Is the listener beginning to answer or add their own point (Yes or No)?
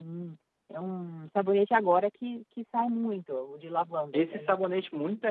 Yes